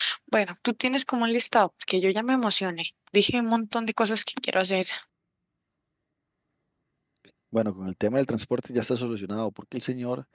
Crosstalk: none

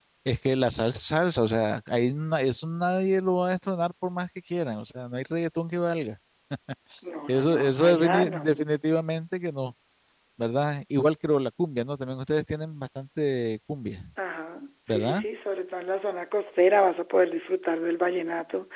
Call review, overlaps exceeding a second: present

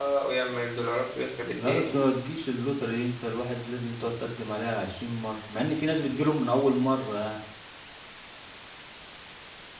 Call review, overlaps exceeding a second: none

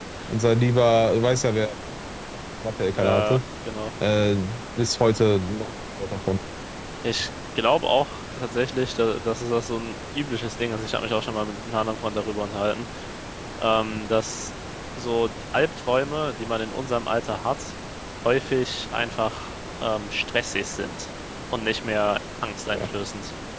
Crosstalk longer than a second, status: none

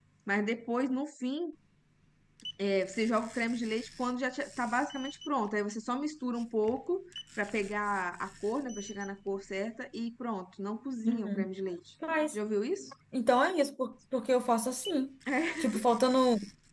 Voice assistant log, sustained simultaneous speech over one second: none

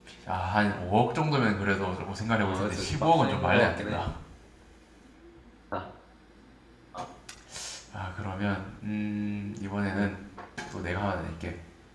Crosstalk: present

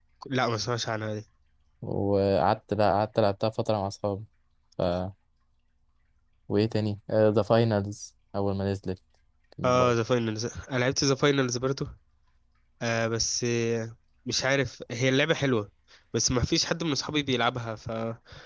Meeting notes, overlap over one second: none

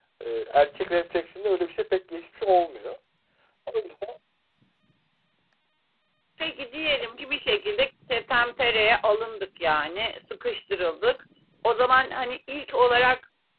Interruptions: none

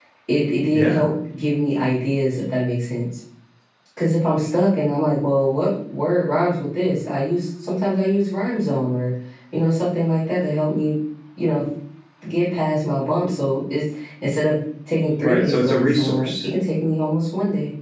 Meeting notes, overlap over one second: present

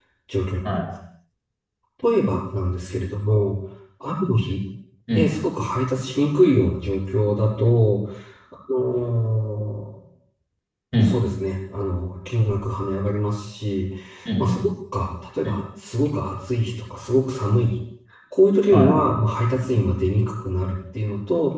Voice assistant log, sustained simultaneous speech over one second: none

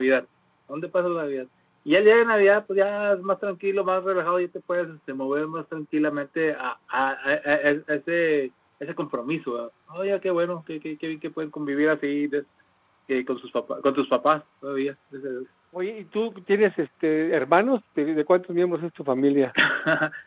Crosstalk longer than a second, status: none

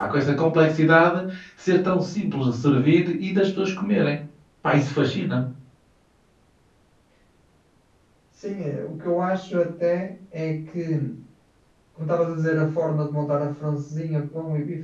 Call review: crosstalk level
none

